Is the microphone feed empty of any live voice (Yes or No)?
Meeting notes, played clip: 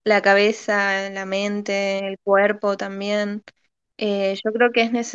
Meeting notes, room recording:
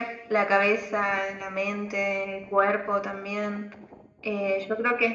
Yes